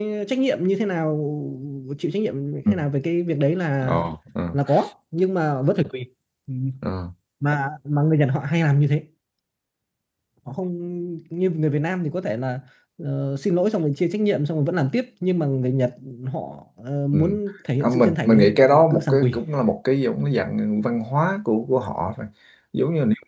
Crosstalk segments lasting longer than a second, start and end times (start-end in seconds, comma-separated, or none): 17.8-19.4